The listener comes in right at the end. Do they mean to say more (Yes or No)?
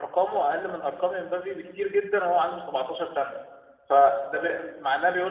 No